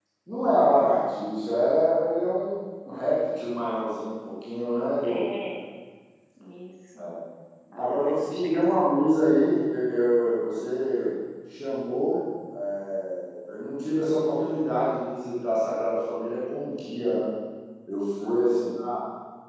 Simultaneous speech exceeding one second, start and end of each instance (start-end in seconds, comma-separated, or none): 7.8-9.0